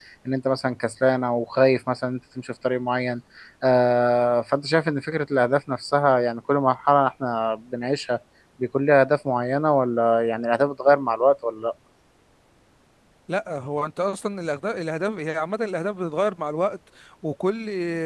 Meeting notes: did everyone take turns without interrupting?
Yes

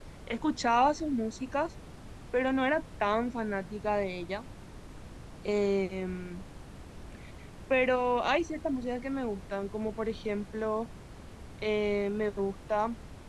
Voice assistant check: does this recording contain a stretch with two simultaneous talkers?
No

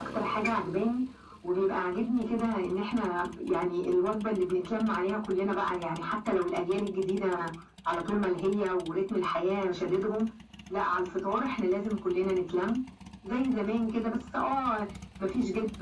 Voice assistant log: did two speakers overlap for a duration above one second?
No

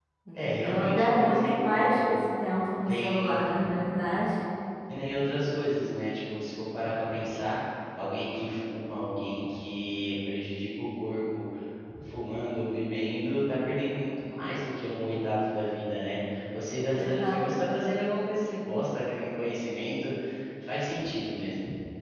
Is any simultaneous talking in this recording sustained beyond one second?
Yes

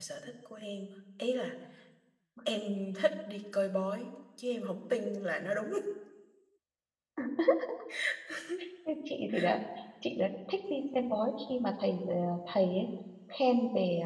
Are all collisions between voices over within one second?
Yes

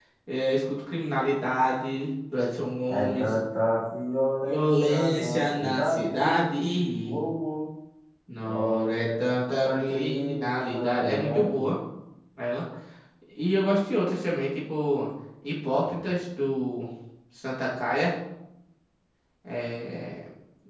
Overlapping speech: Yes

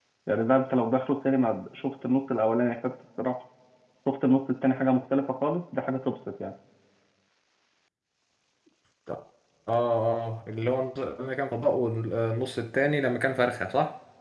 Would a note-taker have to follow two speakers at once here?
No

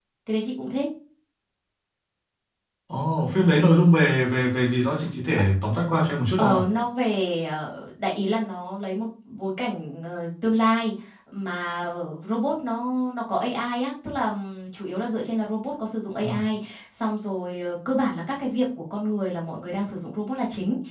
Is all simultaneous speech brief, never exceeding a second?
Yes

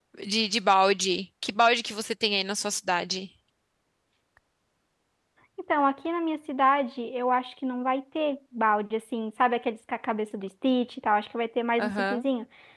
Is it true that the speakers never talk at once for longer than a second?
Yes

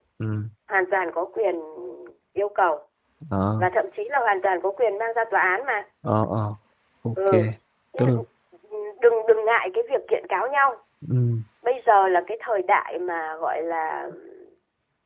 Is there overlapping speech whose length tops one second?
No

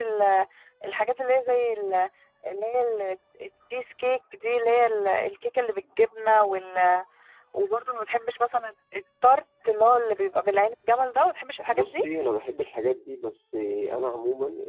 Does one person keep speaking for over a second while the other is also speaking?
No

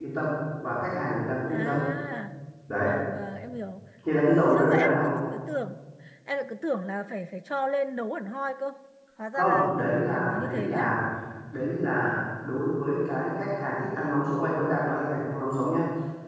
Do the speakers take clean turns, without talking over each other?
No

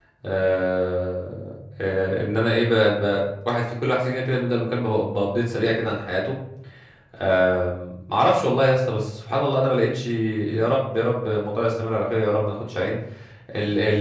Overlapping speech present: No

